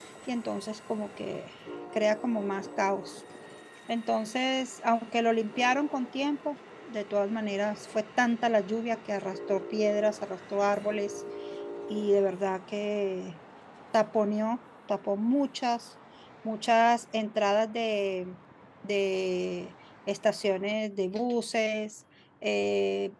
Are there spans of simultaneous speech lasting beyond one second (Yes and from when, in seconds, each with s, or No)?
No